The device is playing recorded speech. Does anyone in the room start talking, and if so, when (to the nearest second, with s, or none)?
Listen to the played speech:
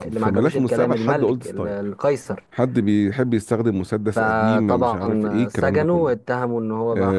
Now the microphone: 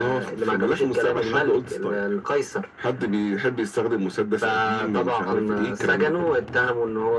none